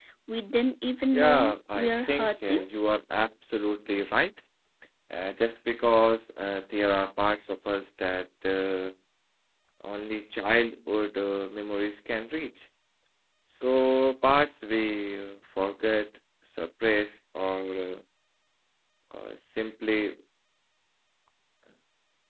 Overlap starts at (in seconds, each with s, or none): 1.1 s